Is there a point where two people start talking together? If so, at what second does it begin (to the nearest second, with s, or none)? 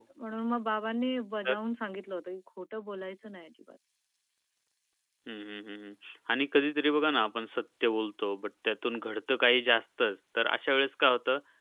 none